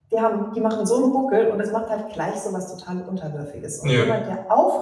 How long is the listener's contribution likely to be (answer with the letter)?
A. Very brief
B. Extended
A